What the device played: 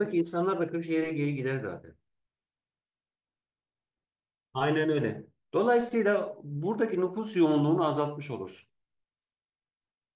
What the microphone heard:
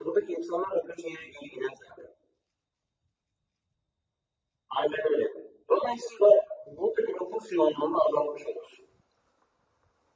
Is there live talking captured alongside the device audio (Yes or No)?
No